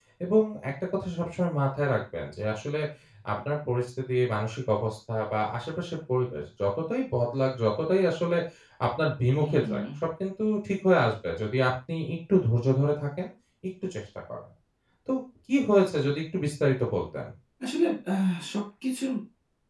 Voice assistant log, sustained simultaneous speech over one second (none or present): none